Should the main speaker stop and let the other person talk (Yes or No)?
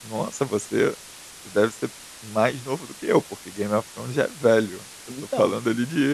No